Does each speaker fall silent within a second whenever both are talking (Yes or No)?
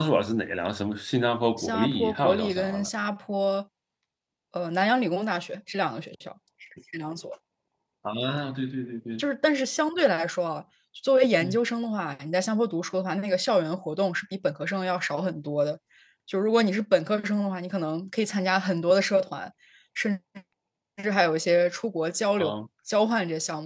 No